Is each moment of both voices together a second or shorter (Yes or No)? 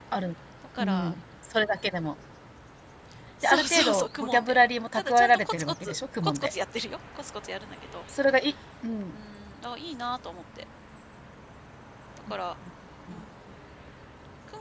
No